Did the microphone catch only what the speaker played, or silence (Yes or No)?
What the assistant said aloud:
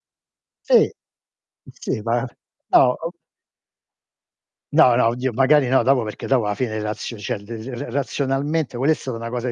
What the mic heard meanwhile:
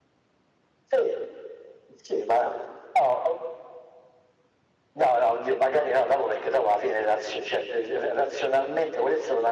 Yes